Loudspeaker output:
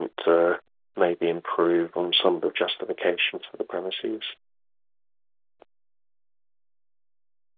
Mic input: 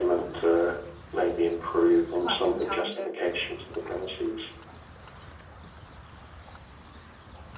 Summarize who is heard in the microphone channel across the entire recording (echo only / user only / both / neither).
both